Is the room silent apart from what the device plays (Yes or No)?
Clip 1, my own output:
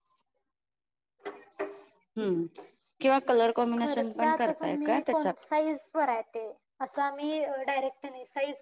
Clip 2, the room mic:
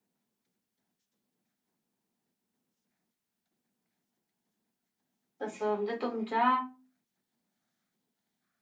No